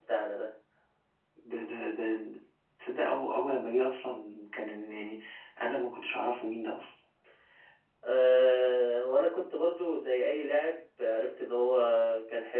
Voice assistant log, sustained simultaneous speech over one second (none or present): none